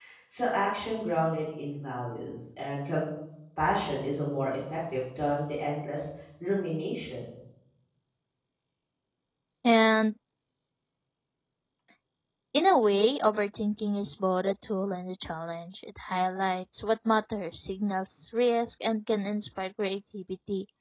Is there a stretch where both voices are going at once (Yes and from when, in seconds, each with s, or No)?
No